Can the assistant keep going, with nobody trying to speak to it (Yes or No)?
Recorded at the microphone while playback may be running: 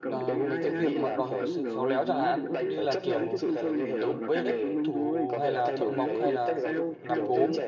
No